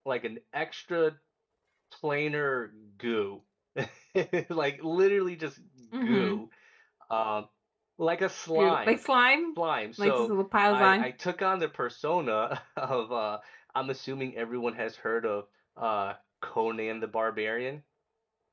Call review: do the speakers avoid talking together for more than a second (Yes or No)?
Yes